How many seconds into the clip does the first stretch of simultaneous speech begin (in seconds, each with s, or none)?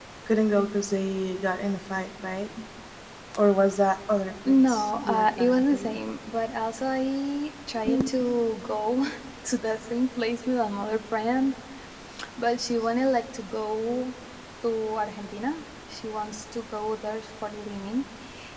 4.5 s